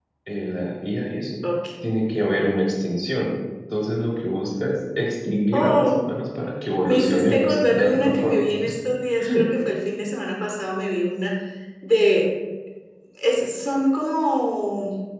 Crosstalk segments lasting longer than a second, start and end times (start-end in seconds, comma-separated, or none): 6.9-8.4